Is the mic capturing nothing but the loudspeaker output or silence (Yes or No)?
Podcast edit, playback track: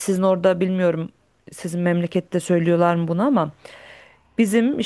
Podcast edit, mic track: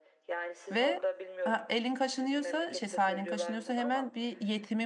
No